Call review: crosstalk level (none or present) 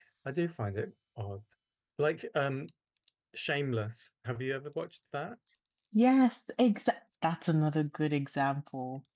none